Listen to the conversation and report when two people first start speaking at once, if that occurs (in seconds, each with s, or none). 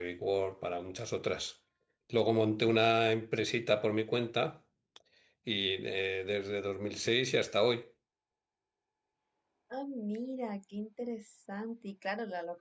none